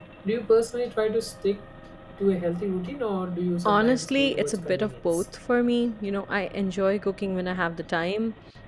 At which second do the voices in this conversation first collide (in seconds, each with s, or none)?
3.6 s